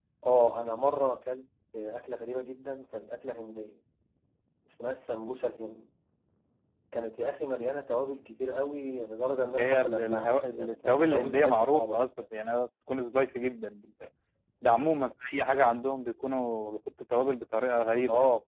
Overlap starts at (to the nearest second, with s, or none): 9 s